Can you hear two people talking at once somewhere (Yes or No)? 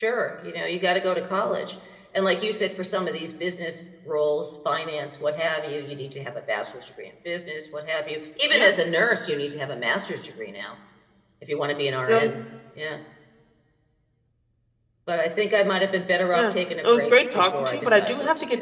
Yes